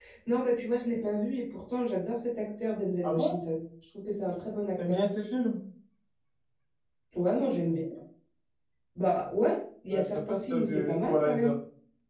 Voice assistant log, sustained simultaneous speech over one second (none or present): present